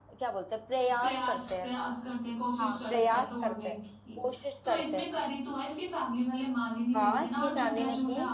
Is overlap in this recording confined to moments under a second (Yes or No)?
No